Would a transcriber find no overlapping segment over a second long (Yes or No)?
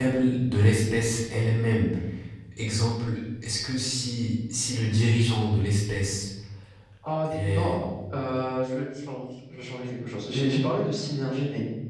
Yes